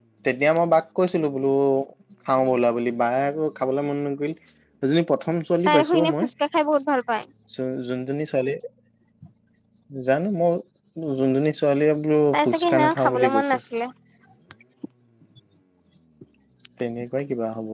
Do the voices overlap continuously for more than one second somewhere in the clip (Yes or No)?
Yes